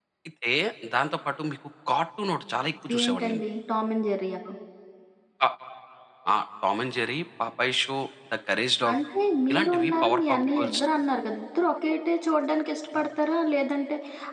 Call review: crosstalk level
present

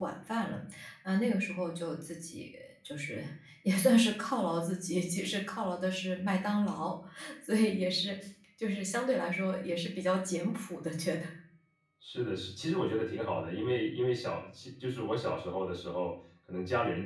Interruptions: none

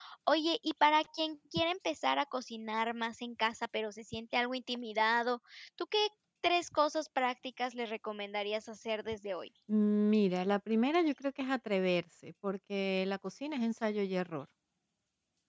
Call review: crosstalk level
none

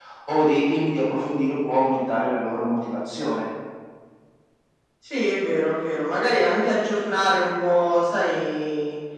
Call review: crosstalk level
none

